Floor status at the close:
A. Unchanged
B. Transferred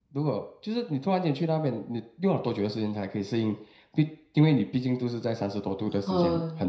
B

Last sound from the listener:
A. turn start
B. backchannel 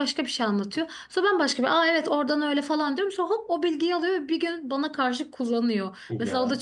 B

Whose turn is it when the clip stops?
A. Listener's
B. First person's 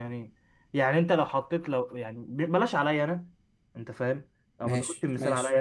B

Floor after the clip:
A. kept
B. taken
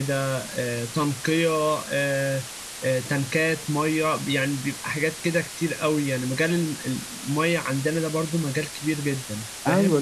B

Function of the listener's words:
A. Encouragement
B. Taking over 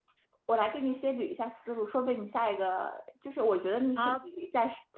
A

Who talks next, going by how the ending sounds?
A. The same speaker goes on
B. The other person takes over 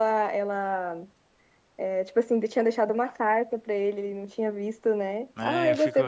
B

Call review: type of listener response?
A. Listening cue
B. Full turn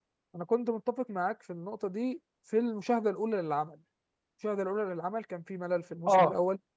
A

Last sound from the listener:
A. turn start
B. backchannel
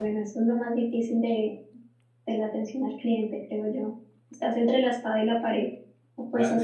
A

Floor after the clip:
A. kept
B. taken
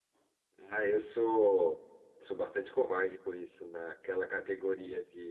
A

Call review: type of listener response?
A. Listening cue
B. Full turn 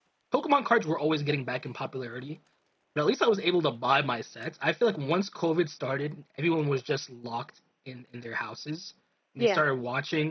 A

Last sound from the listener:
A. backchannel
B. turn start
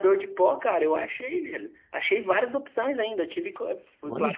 A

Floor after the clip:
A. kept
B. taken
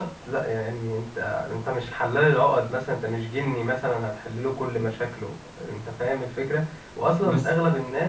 A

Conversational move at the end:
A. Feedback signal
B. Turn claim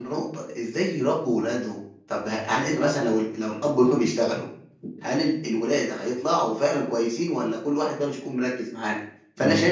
A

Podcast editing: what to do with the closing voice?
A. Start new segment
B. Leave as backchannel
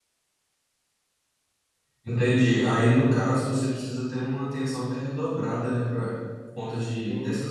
B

